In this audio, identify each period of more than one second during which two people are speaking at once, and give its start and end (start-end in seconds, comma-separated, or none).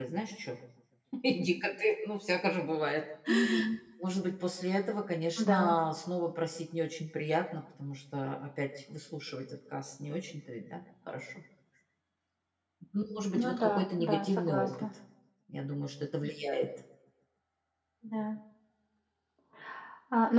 13.4-14.9